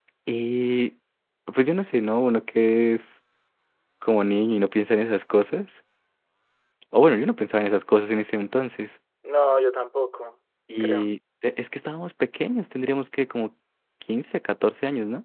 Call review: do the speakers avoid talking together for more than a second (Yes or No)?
Yes